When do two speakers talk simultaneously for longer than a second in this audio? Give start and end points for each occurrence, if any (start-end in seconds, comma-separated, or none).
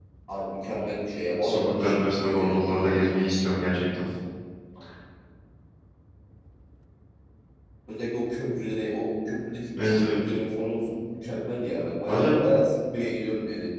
1.4-2.9